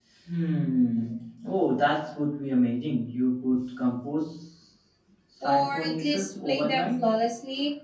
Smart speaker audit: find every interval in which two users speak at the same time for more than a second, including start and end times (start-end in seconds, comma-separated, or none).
5.4-7.0